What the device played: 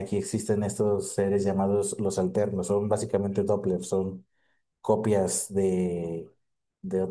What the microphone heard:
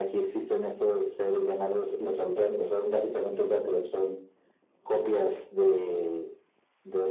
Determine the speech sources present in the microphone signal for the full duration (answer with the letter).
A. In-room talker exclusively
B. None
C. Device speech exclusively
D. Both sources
C